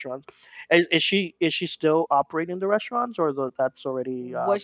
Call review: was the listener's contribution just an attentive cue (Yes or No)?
No